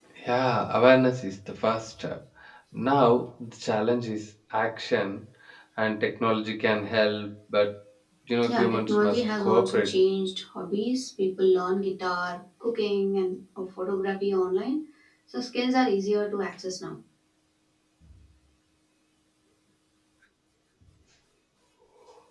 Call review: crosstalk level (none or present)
present